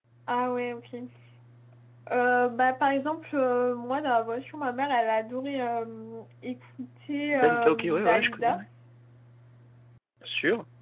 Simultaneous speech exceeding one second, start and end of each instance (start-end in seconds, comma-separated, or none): 7.3-8.6